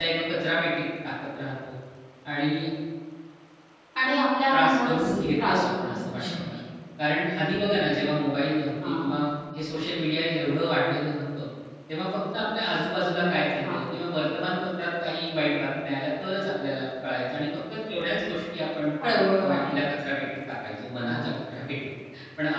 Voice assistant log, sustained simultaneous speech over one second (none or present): present